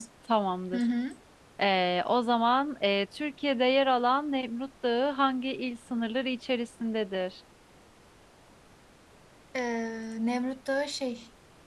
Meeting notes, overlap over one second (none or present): none